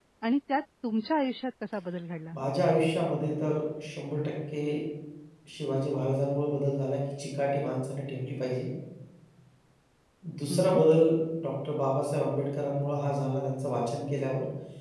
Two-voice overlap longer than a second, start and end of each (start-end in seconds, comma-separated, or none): none